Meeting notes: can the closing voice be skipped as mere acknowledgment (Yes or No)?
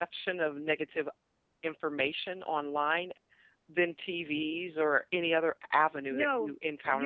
No